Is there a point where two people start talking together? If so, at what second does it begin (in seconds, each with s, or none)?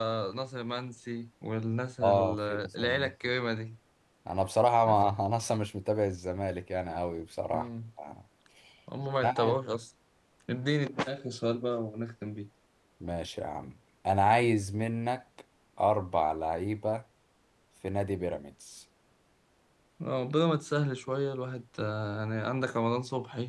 2.0 s